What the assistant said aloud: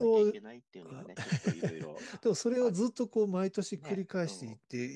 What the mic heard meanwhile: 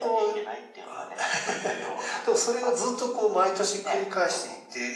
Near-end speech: none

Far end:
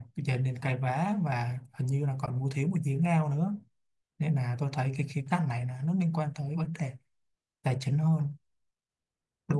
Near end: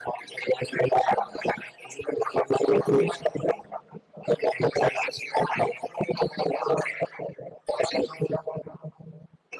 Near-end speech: none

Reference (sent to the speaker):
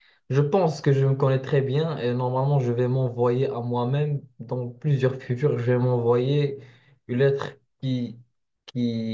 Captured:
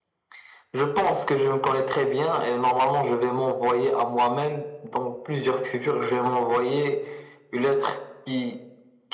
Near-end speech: none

